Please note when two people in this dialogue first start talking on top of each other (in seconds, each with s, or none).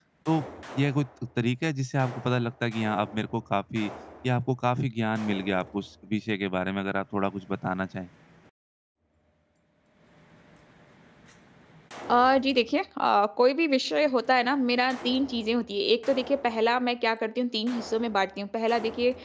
none